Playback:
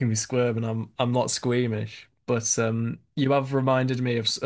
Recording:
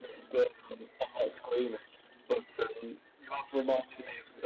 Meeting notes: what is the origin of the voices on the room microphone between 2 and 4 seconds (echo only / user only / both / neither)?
echo only